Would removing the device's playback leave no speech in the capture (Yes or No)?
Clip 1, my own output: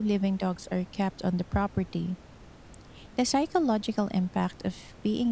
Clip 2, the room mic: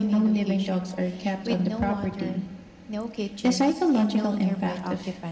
No